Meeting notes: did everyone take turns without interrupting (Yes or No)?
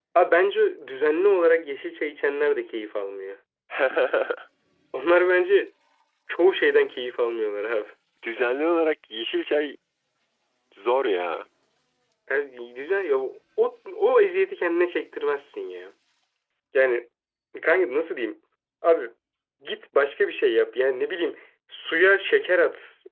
Yes